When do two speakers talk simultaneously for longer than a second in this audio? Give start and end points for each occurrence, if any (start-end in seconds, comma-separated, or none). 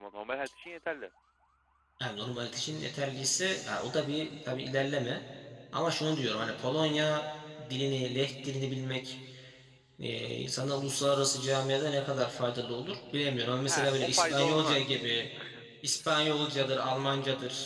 13.7-15.0